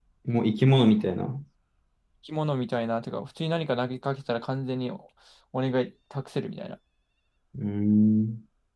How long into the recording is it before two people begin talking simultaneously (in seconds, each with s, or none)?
none